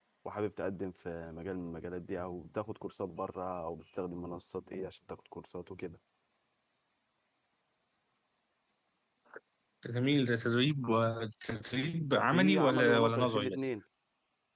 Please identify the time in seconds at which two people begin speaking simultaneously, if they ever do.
12 s

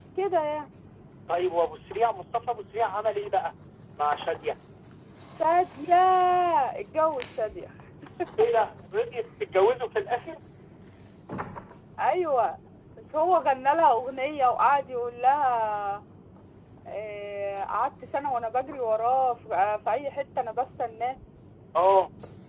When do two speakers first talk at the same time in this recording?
none

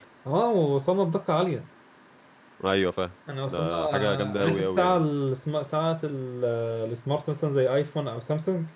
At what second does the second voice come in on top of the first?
3 s

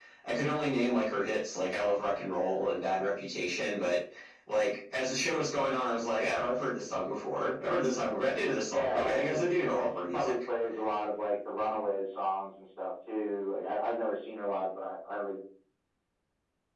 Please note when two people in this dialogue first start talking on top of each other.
9 s

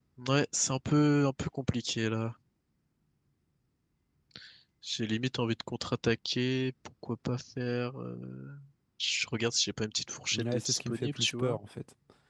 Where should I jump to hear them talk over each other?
10 s

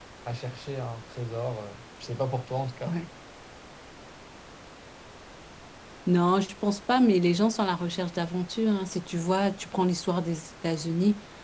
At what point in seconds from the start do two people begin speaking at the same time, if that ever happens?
none

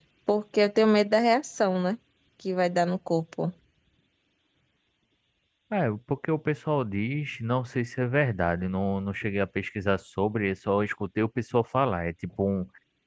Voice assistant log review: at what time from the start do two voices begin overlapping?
none

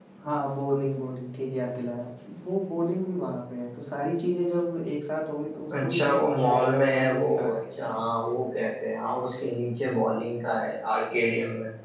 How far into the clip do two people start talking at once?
6 s

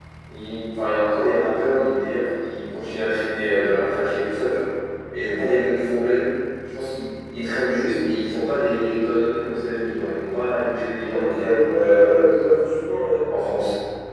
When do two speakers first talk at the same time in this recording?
11 s

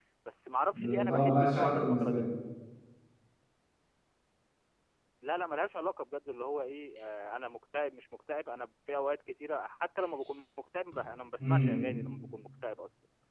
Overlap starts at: 1 s

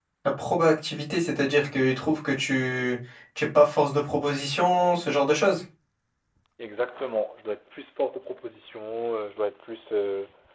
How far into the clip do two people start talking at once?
none

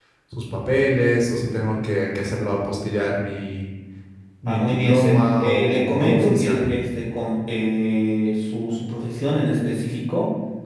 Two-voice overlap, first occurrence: 4 s

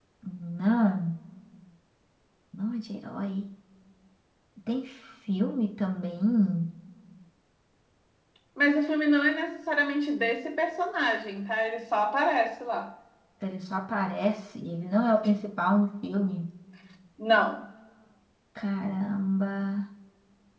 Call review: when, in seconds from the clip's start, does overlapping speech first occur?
none

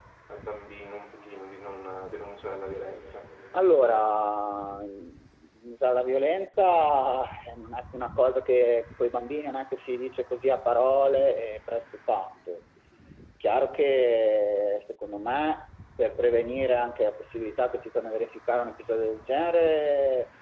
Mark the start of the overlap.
none

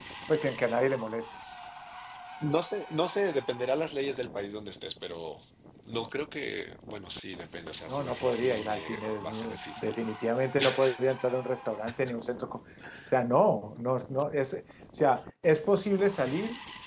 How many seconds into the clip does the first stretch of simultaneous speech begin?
8 s

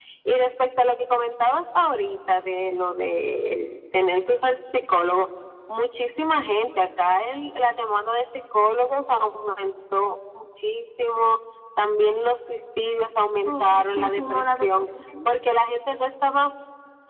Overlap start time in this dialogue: 13 s

